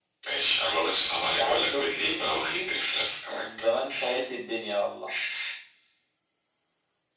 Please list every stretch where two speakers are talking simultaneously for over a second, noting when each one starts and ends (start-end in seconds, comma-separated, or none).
1.1-2.7